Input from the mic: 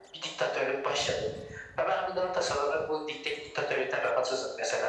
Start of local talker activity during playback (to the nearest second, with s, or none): none